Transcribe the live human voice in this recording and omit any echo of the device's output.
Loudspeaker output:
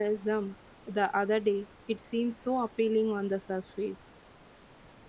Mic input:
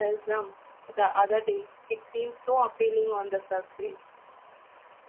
none

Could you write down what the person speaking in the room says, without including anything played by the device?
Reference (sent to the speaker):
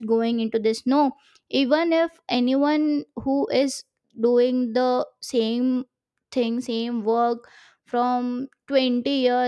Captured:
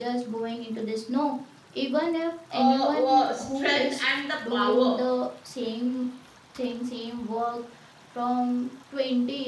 uh, uh, strength and the power

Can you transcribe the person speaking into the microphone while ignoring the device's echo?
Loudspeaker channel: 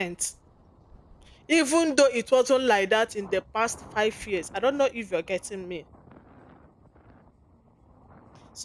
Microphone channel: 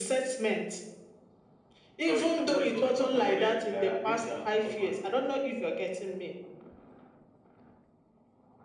Sorry. Before you go on, how can women uh, abuse their husbands?

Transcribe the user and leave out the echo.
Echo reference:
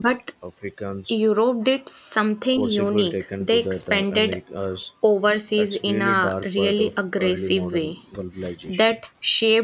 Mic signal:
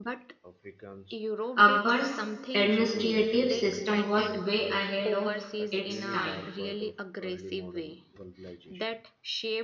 Akbar's administrative system was way ahead of its time.

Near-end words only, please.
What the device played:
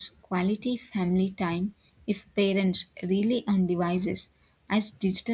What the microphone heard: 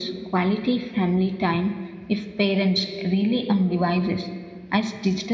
none

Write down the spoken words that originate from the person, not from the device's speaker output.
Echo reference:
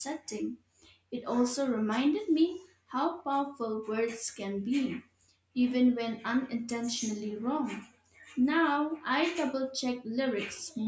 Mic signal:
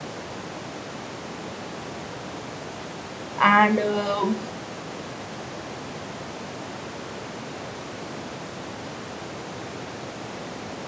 And um

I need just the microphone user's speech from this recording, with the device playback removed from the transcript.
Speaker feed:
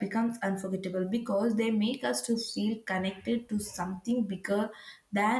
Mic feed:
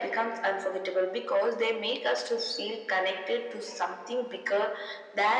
none

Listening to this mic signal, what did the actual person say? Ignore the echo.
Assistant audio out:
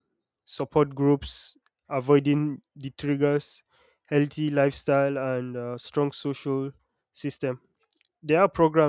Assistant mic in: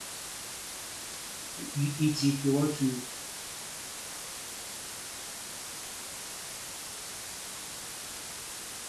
uh, you eat it. They want to you

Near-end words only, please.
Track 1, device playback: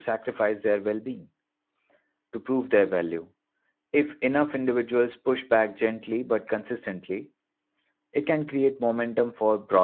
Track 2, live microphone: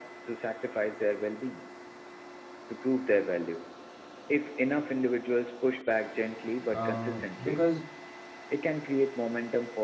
uh, because

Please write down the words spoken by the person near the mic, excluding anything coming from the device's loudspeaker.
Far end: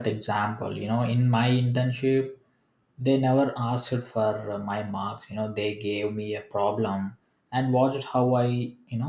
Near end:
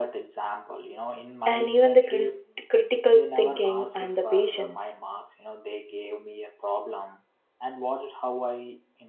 and even the crit- critical thinking and the patience.

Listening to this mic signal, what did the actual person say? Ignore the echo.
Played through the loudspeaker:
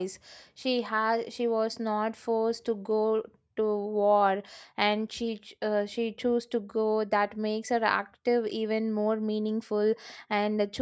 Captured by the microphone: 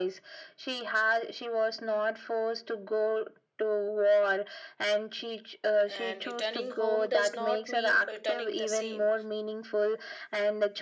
and returning home does not mean returning the same.

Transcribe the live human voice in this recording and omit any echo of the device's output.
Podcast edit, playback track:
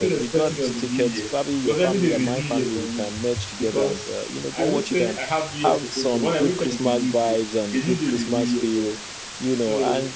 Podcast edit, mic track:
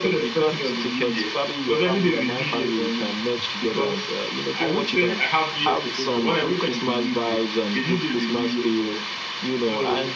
none

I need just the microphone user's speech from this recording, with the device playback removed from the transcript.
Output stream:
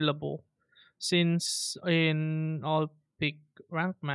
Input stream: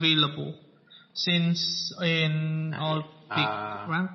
Not yet. Uh,

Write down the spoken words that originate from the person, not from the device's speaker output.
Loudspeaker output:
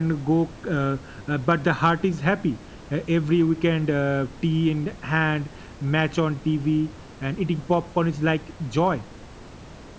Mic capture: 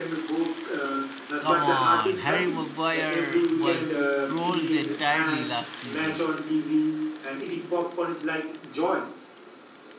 Come on, Harry Maguire was trolled entirely last season.

